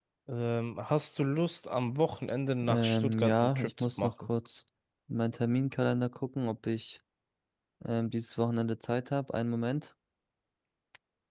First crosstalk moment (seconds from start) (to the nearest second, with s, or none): 3 s